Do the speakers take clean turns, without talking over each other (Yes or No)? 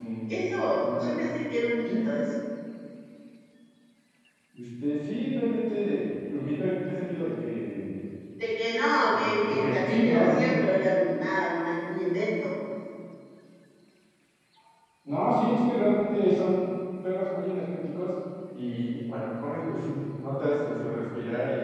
No